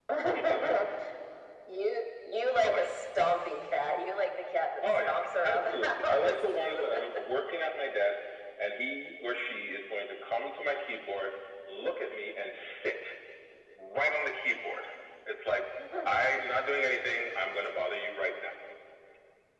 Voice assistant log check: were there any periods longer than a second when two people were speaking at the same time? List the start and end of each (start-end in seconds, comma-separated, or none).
4.9-6.8